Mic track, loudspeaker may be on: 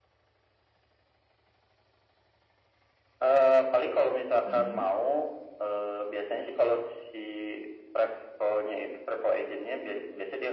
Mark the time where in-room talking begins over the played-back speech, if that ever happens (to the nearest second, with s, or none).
4 s